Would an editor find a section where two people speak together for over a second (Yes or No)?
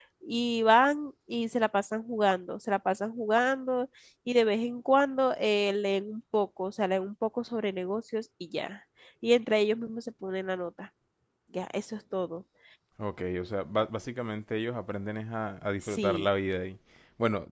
No